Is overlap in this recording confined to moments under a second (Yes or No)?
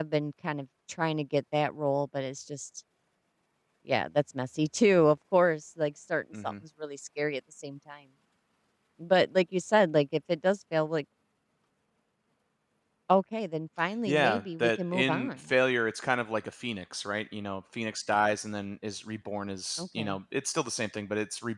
No